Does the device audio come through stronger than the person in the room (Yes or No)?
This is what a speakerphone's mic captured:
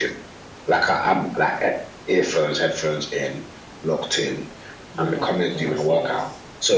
Yes